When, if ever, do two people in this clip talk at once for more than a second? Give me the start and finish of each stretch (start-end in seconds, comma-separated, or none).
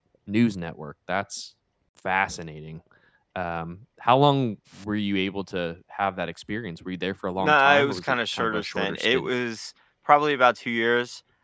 7.4-9.3